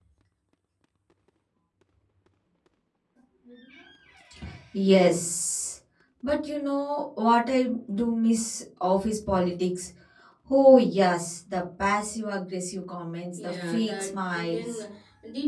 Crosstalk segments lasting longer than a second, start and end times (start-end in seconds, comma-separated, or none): 13.3-14.8